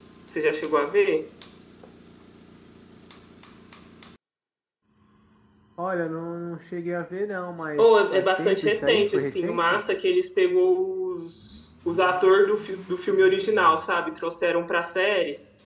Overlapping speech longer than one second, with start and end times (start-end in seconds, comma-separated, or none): 7.8-9.8